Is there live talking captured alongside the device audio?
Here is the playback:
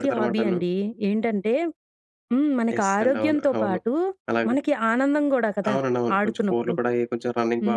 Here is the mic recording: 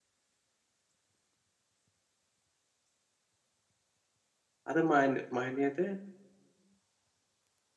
Yes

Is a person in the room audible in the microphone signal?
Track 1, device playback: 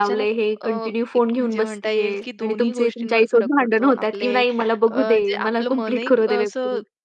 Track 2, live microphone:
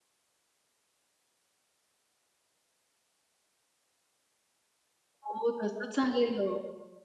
Yes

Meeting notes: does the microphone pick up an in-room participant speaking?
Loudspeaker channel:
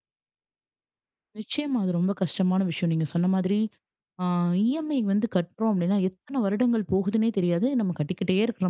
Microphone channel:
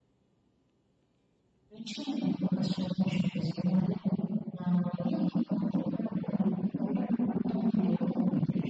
No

